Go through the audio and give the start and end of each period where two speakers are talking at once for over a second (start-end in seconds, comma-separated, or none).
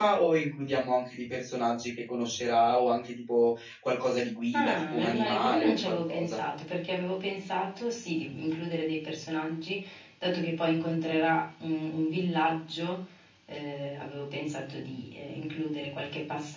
4.5-6.4